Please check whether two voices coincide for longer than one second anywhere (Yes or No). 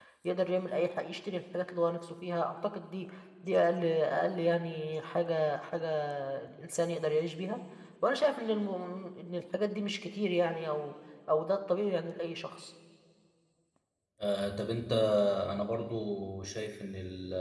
No